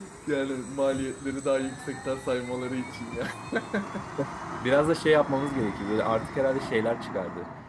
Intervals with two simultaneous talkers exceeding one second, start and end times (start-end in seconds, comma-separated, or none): none